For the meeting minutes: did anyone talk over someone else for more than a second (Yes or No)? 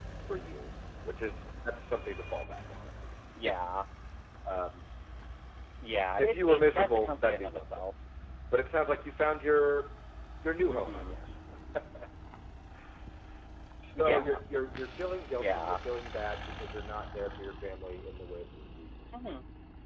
Yes